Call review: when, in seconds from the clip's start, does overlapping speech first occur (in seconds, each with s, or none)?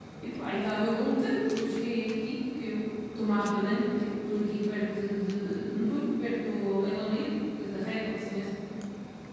none